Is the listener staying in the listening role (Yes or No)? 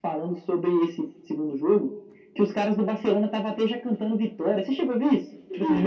No